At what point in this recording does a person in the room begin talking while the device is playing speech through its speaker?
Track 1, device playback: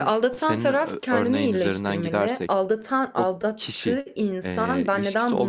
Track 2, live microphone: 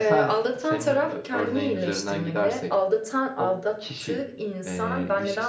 none

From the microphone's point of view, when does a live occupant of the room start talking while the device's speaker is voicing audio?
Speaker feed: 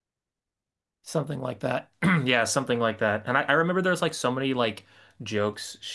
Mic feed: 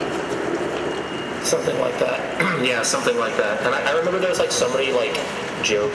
none

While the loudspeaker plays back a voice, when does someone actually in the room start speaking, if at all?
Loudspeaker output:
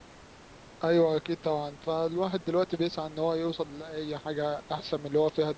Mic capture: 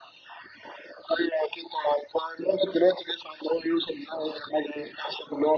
none

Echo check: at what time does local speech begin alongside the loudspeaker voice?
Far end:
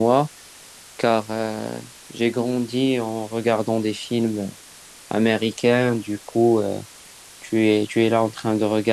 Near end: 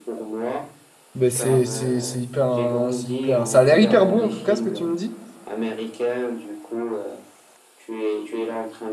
1 s

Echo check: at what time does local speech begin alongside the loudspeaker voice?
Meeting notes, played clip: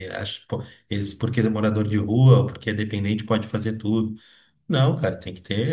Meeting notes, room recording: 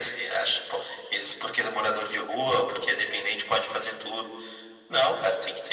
none

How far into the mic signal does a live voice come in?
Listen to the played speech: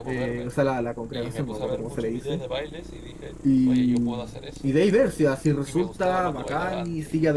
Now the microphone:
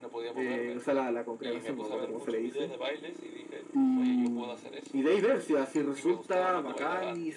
none

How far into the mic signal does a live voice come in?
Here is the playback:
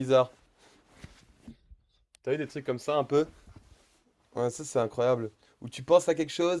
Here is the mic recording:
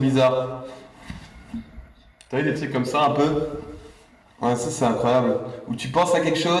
none

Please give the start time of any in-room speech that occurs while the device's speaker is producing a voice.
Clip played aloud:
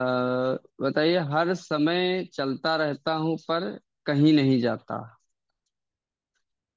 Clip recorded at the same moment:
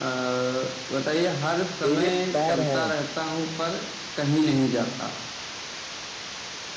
2 s

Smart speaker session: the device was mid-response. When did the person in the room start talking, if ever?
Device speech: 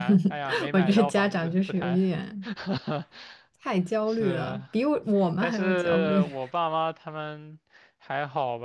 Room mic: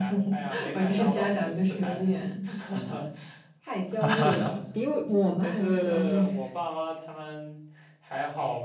4 s

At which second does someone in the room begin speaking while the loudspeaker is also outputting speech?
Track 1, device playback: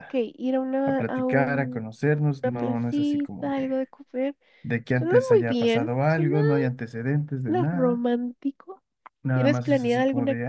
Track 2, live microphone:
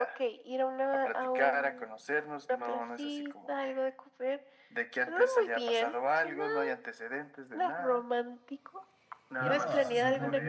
9 s

